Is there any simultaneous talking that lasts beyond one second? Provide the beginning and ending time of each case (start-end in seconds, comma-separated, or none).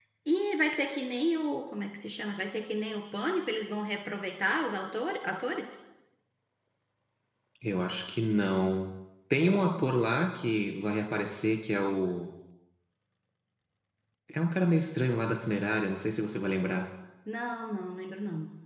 none